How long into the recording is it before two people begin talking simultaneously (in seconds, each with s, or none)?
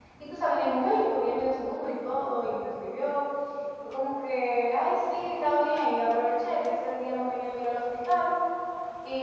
none